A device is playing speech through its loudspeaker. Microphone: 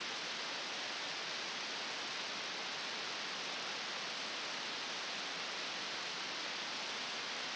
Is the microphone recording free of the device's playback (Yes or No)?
Yes